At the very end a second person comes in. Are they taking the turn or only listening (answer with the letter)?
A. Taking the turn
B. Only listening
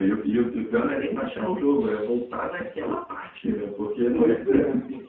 A